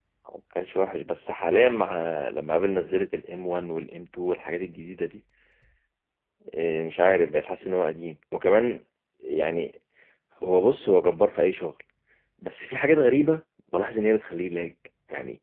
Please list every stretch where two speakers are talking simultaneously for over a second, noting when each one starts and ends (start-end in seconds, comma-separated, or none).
none